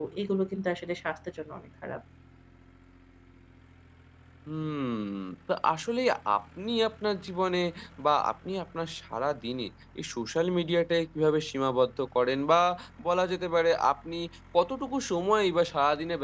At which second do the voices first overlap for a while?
none

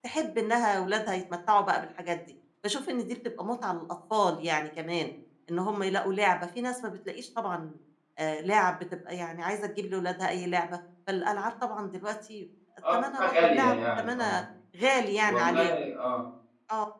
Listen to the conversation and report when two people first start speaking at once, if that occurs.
12.9 s

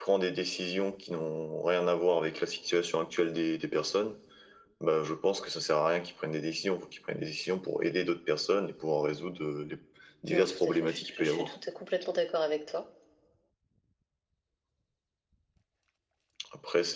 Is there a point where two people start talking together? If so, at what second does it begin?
10.3 s

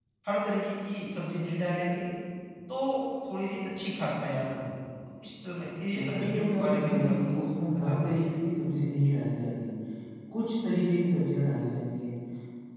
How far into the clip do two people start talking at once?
5.9 s

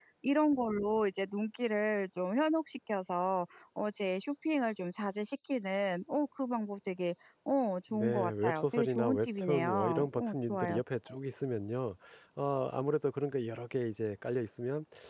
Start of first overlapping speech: 7.9 s

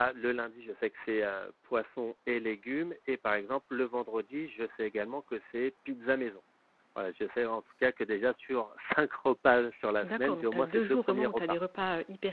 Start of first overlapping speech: 10.0 s

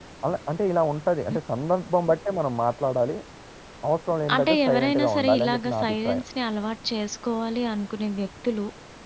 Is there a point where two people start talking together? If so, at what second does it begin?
4.3 s

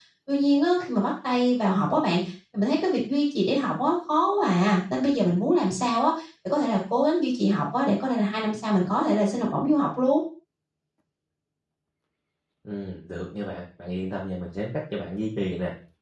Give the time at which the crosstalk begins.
none

